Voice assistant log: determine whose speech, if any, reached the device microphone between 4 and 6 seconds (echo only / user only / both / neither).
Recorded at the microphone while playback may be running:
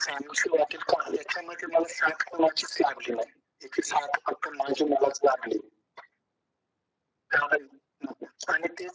echo only